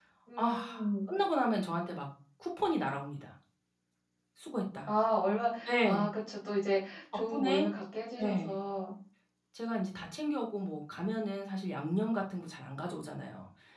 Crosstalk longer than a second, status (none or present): none